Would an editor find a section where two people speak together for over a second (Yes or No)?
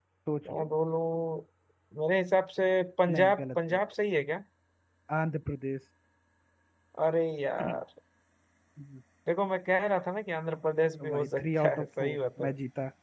Yes